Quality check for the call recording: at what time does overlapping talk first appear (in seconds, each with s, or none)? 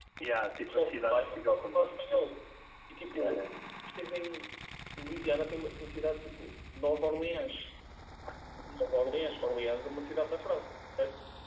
0.7 s